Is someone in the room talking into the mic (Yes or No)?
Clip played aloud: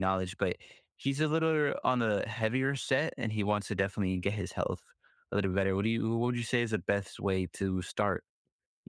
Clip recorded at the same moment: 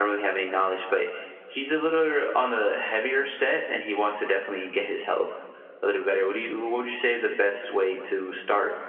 No